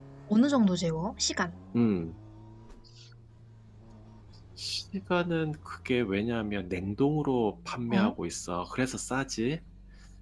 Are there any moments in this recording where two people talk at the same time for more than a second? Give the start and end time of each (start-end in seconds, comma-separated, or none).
none